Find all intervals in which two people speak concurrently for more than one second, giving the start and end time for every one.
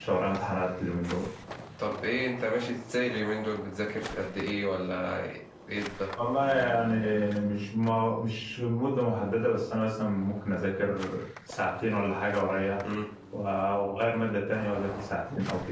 none

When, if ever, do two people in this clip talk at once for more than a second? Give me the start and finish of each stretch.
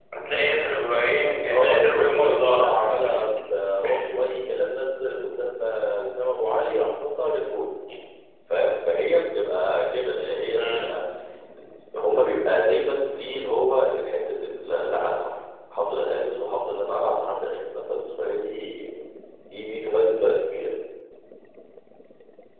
1.5-3.0

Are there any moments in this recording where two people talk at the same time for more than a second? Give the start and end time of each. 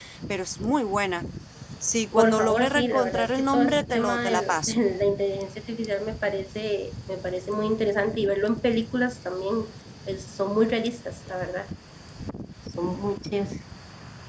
2.2-4.8

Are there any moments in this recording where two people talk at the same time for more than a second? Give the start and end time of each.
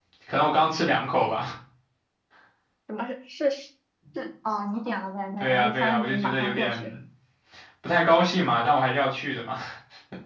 5.4-6.9

